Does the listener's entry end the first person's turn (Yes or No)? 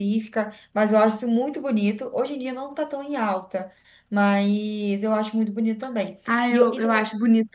Yes